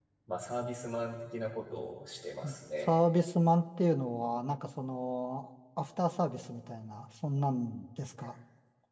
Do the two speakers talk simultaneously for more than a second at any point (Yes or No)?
No